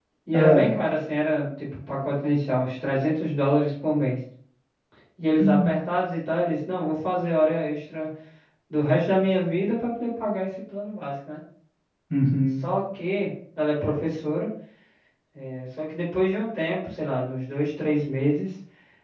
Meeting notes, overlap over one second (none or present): none